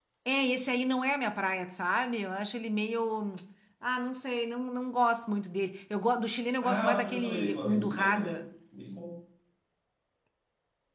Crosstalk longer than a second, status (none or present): present